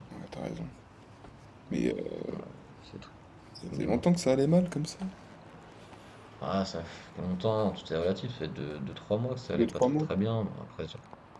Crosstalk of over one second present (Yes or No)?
No